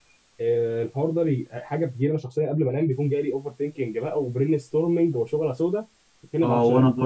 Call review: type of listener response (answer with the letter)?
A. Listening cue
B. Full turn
B